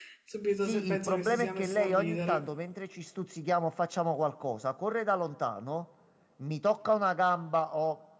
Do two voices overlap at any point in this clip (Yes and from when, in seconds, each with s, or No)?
Yes, from 0.6 s